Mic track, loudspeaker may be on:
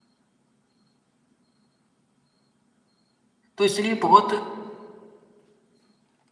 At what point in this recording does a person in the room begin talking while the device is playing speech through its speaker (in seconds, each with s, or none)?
3.6 s